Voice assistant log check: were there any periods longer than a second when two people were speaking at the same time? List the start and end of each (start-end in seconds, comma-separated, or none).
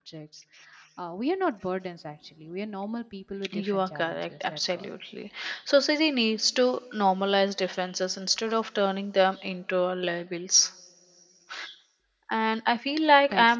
3.5-4.9